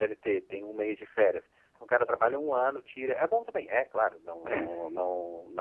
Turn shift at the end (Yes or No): No